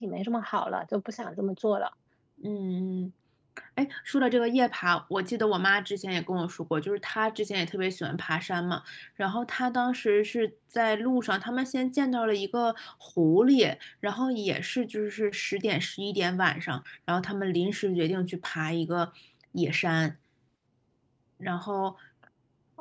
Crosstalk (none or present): none